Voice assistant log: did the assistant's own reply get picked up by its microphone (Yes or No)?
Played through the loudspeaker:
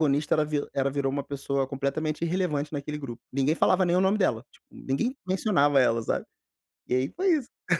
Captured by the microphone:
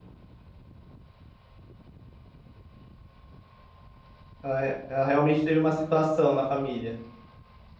No